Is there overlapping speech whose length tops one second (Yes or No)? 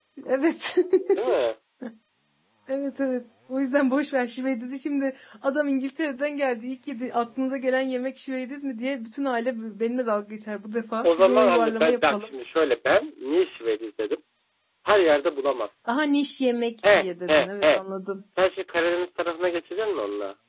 Yes